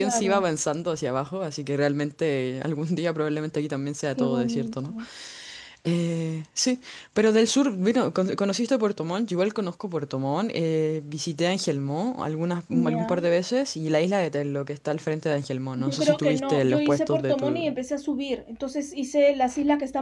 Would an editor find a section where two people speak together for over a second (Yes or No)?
Yes